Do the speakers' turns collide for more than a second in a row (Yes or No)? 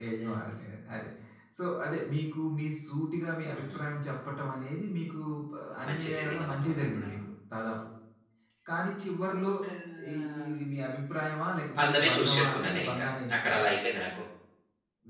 Yes